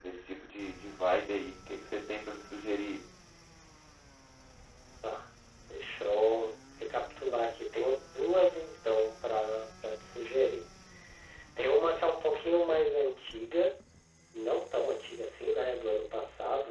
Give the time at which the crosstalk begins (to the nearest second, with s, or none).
none